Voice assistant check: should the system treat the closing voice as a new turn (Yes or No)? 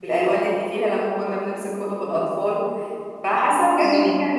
No